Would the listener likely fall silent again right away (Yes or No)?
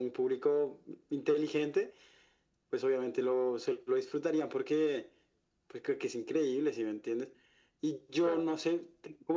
Yes